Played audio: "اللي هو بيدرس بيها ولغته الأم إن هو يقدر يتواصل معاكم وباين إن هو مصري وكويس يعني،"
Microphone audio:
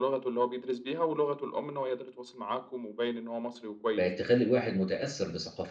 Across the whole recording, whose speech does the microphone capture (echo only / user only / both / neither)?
both